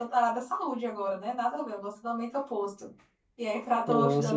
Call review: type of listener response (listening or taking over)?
taking over